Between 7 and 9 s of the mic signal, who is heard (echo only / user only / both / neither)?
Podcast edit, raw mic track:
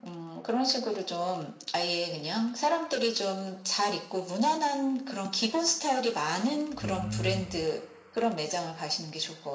both